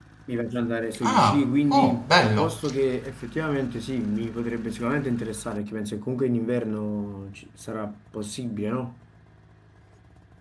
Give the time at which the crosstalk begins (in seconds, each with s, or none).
1.0 s